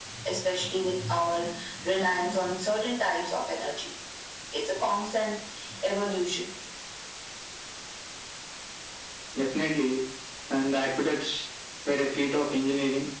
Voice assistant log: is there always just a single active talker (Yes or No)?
Yes